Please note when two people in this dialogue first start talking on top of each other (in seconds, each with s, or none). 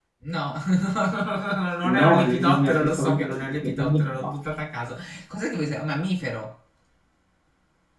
1.8 s